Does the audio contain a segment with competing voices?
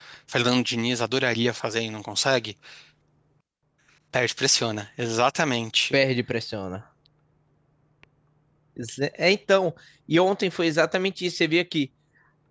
No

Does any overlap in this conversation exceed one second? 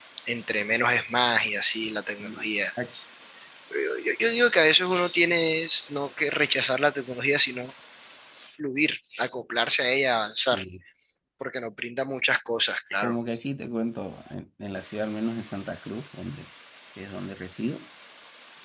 No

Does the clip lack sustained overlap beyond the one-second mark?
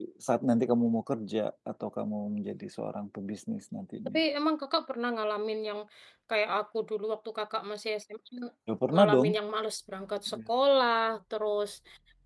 Yes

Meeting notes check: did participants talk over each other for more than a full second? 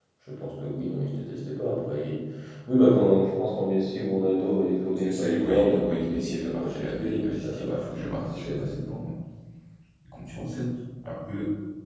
Yes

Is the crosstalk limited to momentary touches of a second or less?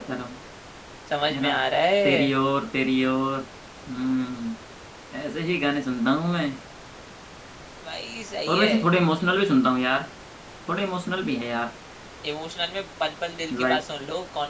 Yes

